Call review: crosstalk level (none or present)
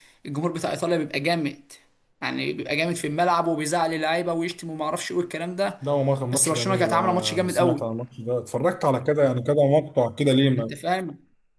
present